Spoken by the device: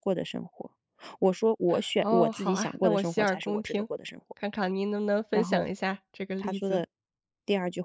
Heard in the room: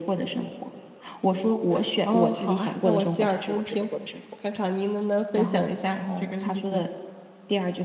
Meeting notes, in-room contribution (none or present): present